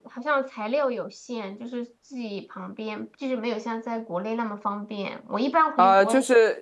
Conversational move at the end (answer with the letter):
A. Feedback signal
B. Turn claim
B